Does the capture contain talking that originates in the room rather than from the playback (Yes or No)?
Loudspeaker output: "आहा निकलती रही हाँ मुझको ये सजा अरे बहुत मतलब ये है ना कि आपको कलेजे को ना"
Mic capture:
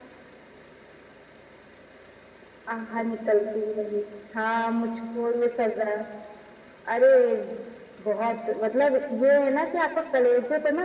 No